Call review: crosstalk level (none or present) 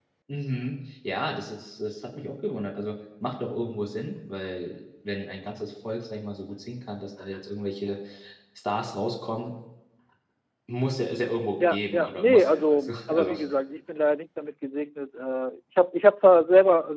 present